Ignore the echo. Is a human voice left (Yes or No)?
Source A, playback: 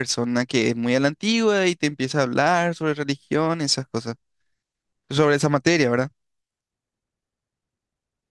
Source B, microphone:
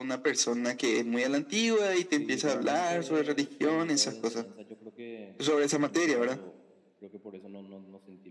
Yes